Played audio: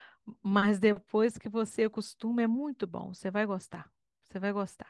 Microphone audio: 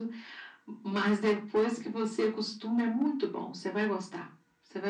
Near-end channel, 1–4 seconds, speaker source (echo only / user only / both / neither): echo only